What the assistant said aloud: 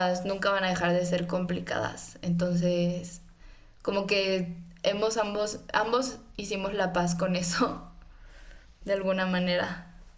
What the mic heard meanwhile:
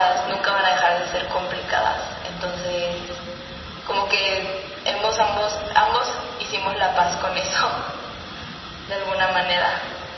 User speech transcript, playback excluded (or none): none